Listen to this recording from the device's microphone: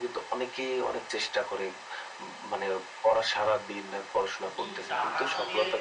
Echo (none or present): present